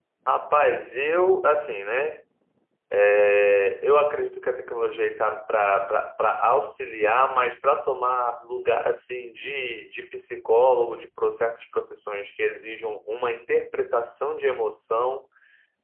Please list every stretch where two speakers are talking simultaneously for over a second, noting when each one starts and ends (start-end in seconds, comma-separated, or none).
none